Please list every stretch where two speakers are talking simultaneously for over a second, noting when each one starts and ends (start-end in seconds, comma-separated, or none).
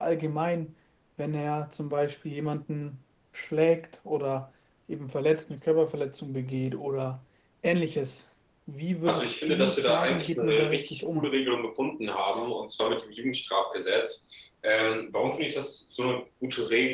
9.1-11.3